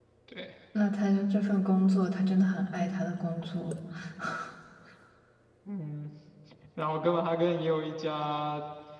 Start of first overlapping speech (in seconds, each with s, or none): none